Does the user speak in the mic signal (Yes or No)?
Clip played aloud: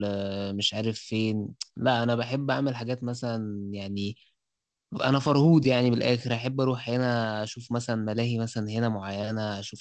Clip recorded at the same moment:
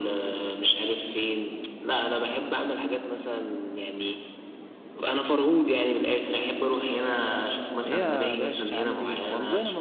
Yes